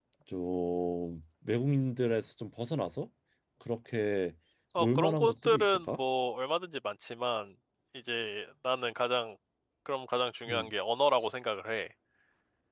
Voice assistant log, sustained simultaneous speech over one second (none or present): present